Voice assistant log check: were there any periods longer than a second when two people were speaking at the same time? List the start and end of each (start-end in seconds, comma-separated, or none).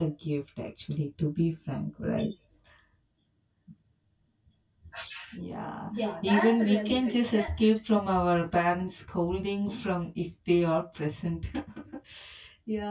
5.9-7.5